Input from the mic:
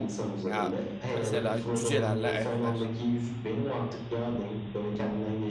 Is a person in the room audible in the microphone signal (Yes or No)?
Yes